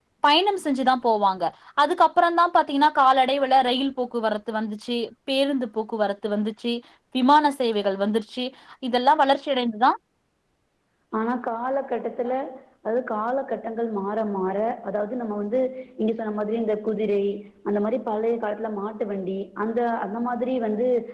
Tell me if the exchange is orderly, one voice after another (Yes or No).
Yes